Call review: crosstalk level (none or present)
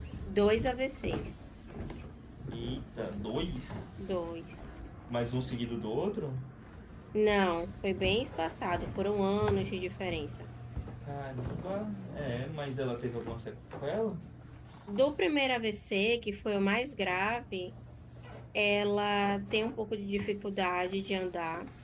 none